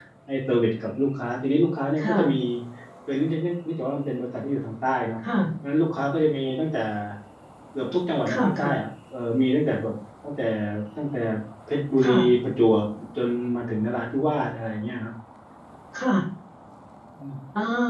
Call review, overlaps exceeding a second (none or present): none